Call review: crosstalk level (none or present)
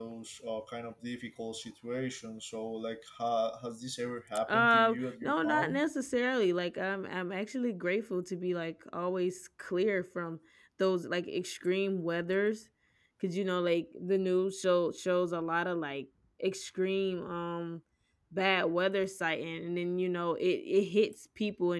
present